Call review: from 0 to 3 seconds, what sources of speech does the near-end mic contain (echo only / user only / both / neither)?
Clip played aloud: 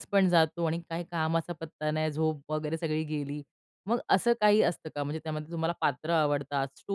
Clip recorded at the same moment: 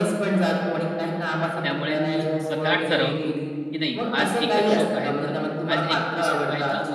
both